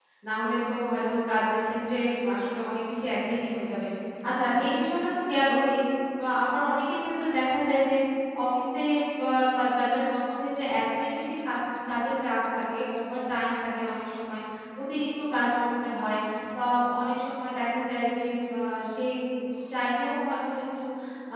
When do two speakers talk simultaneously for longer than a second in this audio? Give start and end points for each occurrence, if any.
none

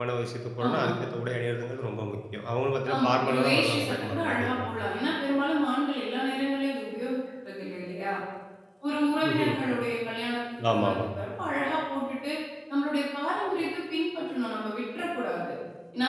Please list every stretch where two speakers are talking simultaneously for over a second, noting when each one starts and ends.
2.9-4.7

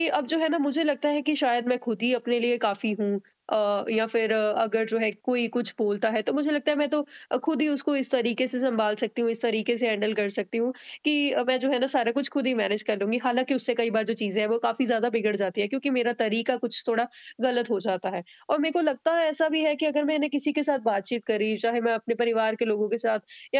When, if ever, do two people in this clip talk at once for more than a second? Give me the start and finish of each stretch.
none

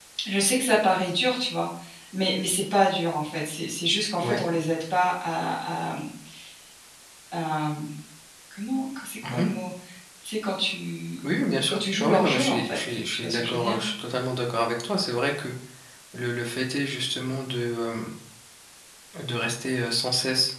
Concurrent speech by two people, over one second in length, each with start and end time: 11.7-13.8

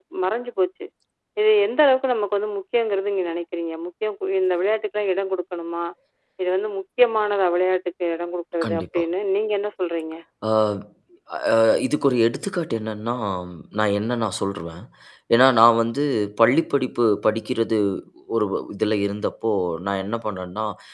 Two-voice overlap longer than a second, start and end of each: none

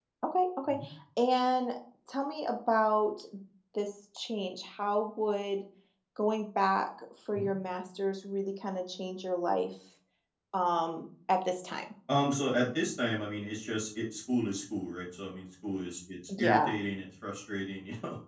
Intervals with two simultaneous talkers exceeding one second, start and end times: none

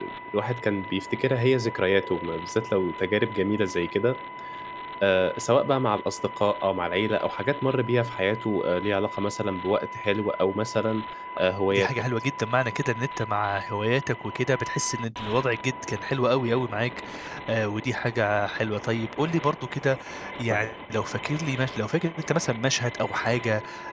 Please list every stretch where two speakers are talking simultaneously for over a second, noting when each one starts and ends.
none

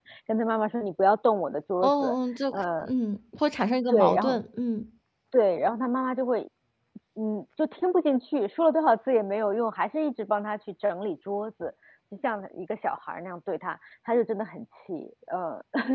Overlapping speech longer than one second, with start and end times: none

